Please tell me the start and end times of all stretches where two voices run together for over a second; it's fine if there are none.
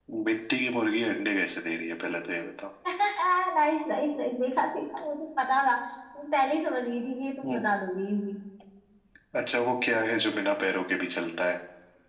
none

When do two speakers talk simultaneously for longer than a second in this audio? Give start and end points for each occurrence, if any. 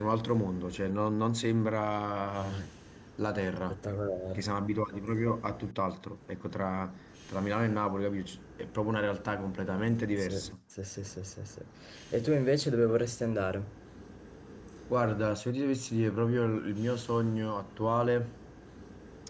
none

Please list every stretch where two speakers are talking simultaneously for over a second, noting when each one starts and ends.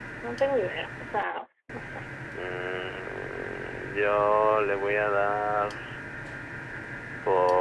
none

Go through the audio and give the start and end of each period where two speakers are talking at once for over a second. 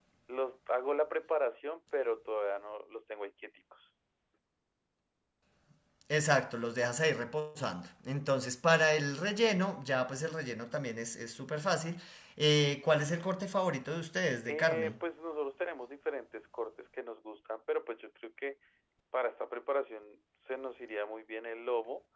none

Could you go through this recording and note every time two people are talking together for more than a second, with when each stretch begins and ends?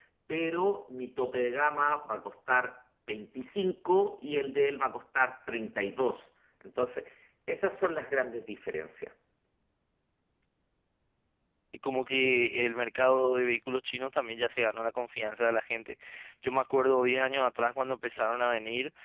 none

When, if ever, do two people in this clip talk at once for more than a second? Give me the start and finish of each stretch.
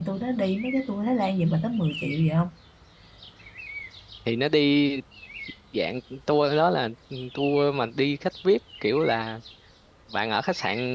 none

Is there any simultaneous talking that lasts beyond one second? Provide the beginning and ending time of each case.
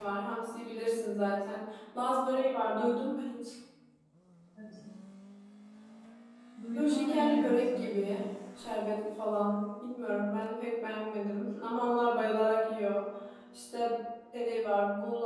6.7-8.2

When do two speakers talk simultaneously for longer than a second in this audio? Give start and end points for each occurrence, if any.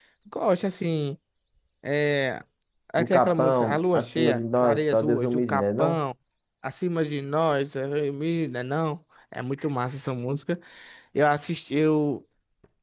3.0-6.0

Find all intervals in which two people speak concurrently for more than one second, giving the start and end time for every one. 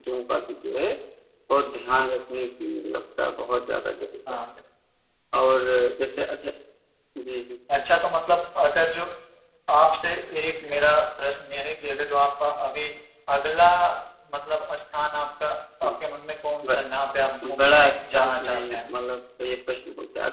17.5-18.9

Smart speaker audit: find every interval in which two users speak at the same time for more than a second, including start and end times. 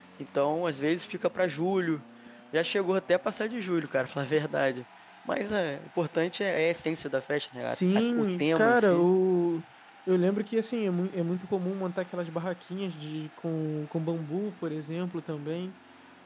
7.7-9.1

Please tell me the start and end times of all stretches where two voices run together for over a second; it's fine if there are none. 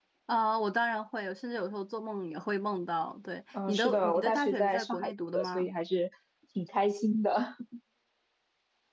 3.7-5.7

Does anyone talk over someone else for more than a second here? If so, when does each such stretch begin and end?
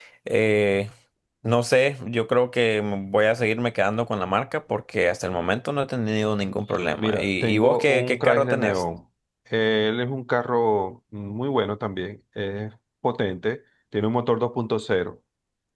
7.0-8.8

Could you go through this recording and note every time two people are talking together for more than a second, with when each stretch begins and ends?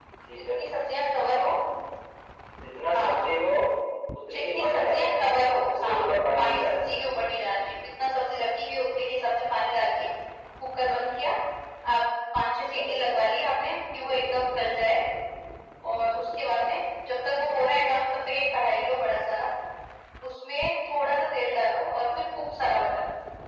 4.3-7.1

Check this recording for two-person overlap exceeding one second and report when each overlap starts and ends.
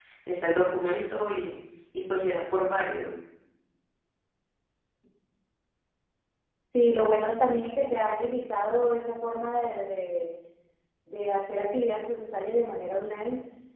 none

